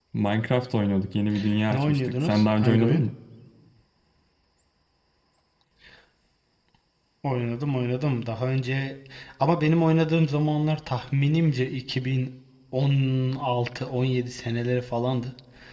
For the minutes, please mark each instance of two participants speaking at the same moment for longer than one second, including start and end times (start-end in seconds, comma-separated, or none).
1.7-3.0